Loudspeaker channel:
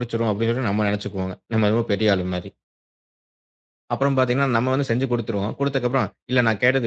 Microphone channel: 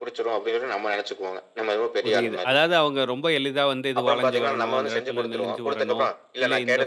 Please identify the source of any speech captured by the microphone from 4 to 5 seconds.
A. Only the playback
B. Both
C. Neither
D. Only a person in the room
B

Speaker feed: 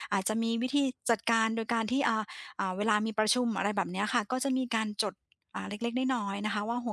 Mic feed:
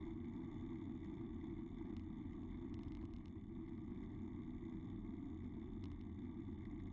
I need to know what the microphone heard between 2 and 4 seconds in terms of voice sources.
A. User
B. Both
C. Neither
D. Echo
C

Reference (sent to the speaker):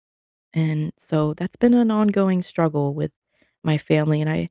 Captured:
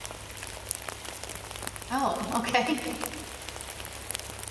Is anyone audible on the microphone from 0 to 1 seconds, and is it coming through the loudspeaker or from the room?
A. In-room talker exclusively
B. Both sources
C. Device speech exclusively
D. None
D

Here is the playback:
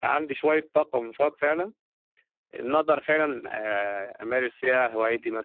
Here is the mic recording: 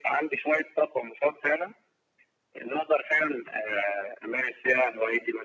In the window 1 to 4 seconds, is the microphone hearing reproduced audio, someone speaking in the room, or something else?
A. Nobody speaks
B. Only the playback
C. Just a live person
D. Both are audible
B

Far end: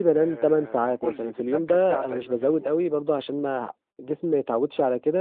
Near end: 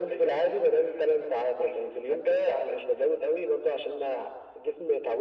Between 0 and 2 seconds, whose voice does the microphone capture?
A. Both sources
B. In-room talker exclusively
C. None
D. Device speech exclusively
D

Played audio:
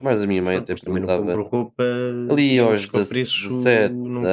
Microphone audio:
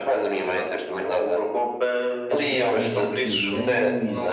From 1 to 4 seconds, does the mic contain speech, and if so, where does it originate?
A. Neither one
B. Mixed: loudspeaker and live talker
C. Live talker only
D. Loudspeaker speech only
B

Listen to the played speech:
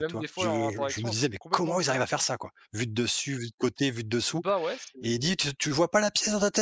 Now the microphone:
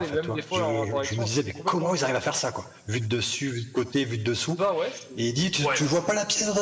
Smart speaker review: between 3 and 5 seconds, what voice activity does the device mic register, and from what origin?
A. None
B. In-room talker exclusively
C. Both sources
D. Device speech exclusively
D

